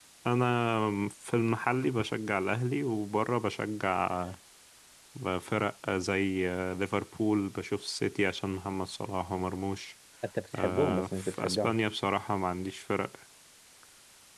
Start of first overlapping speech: 11 s

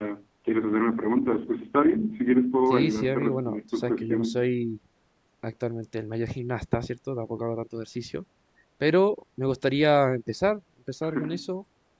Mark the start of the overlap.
3 s

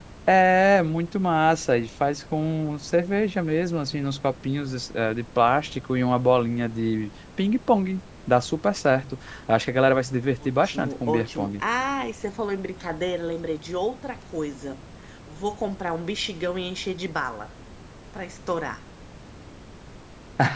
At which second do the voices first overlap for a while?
10 s

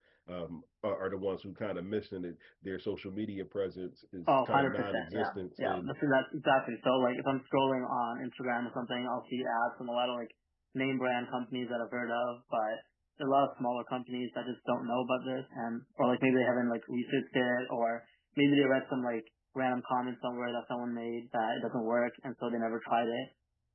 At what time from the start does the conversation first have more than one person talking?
4 s

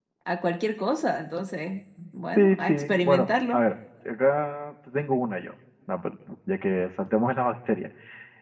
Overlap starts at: 2 s

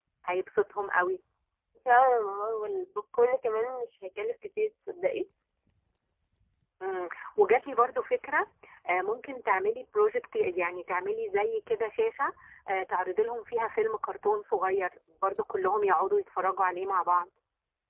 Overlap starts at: none

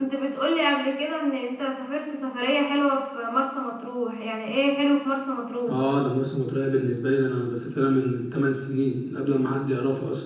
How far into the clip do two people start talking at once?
none

